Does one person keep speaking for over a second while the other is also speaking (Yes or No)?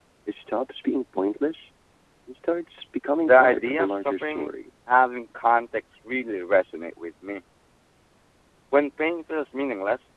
Yes